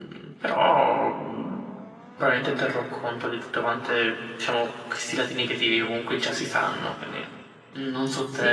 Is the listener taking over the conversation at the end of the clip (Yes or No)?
Yes